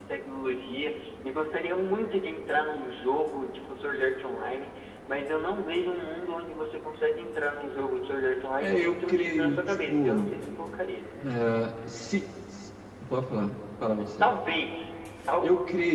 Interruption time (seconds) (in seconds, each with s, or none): 8.6 s